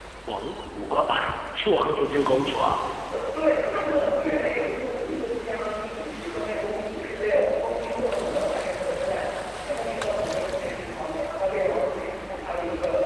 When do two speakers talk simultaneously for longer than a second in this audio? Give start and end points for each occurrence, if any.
none

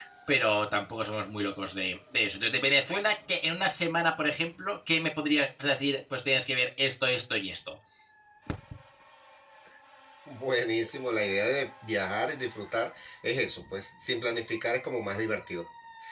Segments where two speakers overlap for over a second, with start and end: none

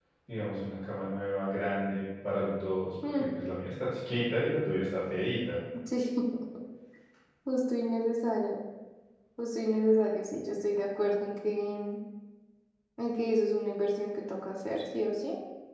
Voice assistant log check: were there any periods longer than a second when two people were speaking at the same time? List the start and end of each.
none

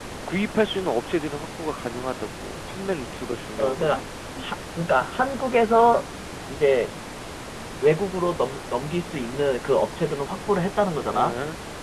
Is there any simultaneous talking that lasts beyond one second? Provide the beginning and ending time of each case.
none

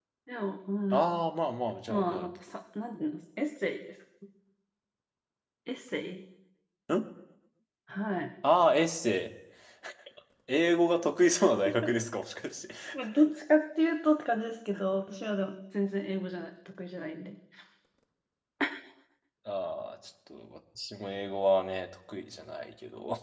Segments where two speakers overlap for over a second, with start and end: none

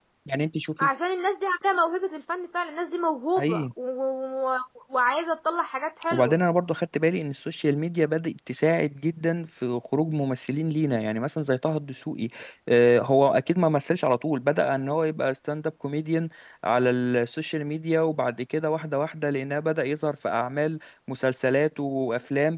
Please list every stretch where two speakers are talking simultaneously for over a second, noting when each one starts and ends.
none

